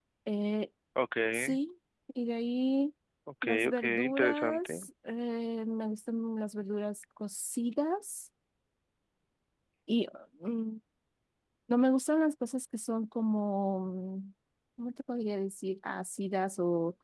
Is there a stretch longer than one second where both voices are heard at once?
Yes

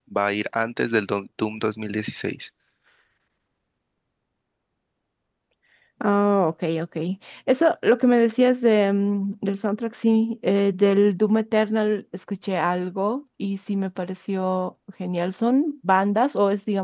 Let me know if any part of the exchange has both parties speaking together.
No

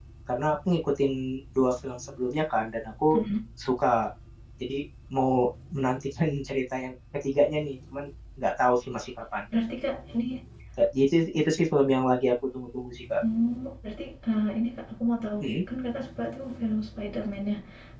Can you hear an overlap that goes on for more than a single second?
No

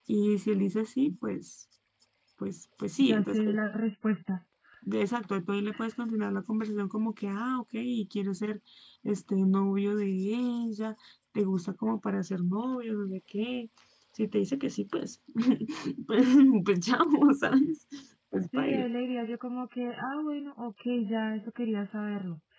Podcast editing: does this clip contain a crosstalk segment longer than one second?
No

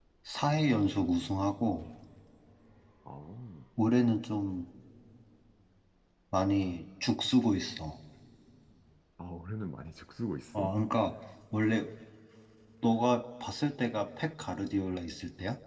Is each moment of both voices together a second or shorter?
Yes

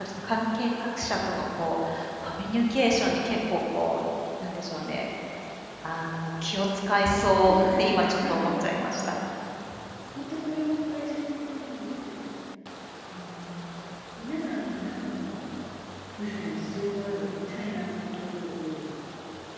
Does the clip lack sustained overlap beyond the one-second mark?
No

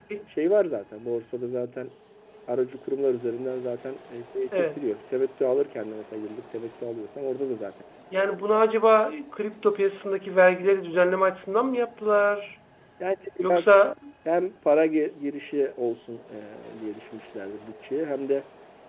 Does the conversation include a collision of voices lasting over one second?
No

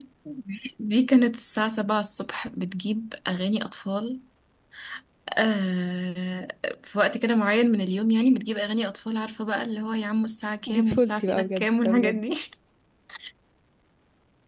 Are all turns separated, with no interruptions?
No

